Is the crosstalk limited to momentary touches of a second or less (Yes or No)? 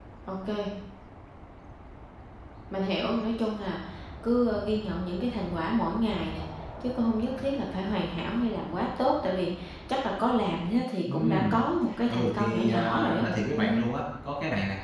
No